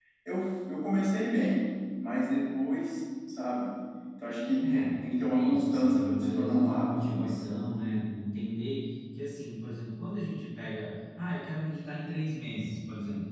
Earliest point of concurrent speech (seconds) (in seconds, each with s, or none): 4.6 s